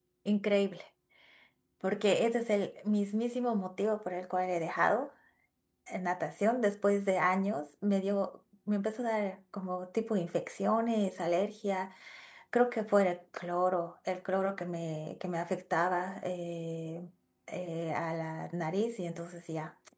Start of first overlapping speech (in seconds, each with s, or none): none